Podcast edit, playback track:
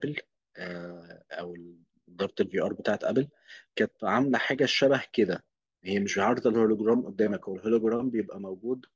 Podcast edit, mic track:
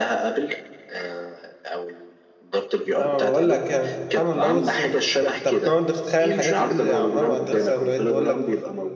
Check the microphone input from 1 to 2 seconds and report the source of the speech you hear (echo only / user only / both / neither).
echo only